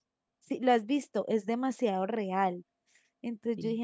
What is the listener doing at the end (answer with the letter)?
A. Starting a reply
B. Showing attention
B